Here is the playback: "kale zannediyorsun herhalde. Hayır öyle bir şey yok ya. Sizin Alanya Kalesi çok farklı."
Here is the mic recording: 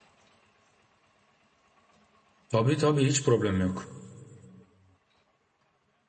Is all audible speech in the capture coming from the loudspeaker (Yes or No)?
No